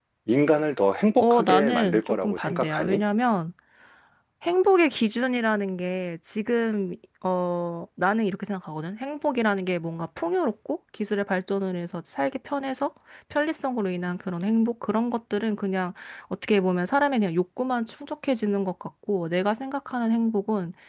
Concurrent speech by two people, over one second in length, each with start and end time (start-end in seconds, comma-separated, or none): 1.2-3.0